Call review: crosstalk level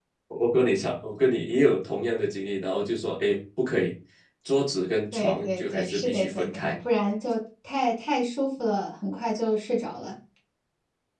present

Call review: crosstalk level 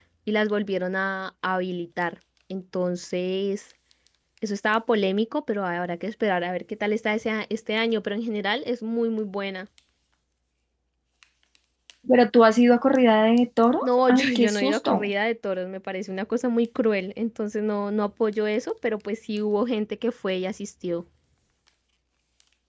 present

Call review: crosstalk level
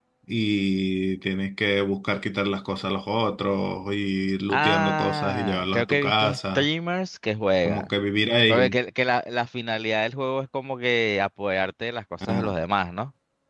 present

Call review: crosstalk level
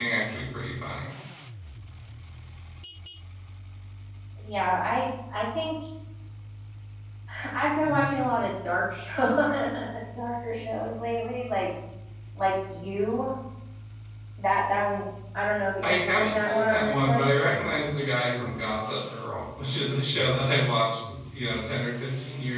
present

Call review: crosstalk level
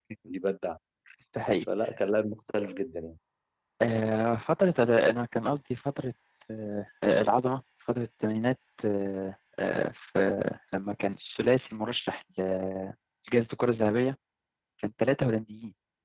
none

